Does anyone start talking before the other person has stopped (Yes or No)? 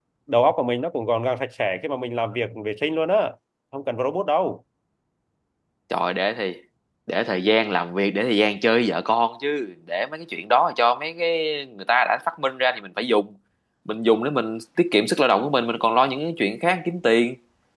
No